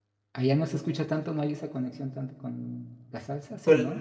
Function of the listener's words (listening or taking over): taking over